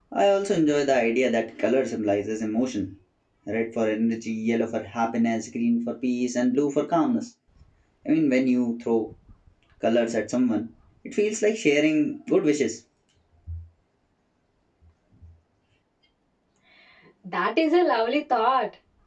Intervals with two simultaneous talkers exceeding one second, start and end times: none

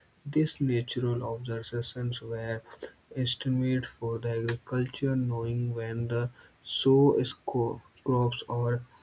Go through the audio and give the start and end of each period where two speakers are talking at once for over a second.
none

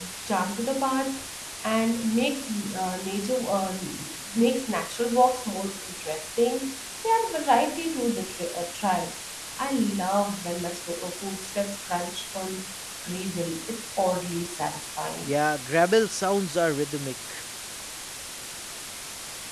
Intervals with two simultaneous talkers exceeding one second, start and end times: none

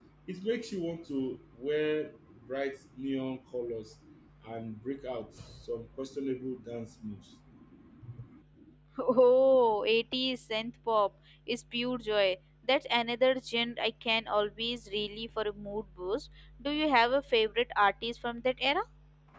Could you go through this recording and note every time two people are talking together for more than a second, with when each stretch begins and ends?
none

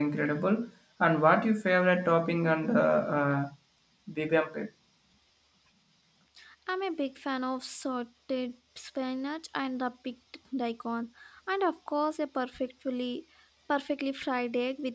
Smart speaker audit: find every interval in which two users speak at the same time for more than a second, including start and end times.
none

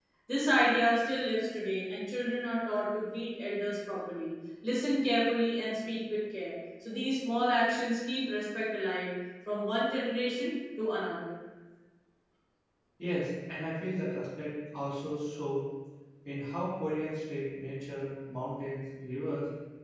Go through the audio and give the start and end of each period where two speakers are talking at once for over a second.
none

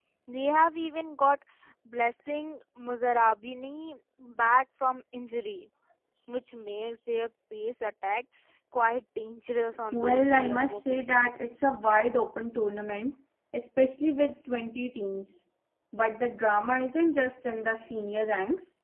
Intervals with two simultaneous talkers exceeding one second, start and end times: 9.9-11.2

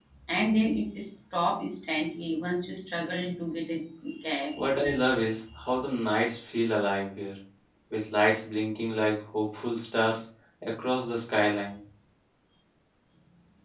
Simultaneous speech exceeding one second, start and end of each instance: none

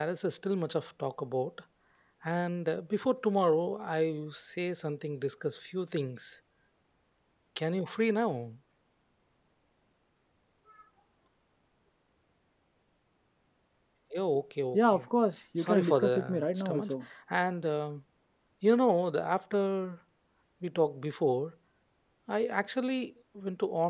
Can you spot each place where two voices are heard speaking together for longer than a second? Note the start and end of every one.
15.6-16.9

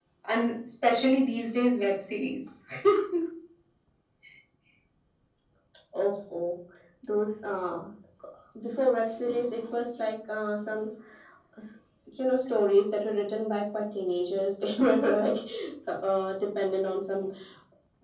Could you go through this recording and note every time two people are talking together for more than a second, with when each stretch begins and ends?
none

